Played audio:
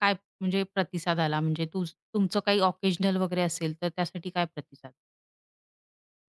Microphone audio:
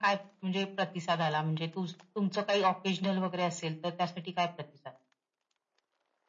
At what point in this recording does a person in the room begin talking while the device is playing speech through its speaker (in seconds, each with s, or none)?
none